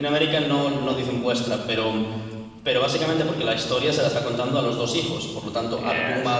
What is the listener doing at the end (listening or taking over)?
listening